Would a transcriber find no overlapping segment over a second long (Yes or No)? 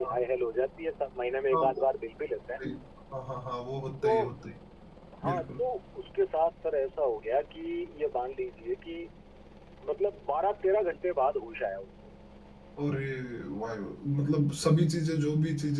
Yes